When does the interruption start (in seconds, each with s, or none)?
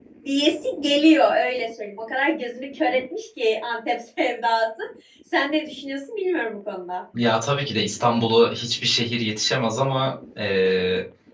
none